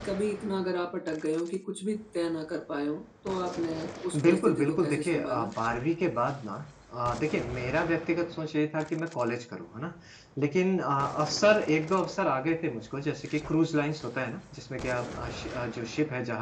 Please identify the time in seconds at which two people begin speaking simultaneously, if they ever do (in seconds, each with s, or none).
4.1 s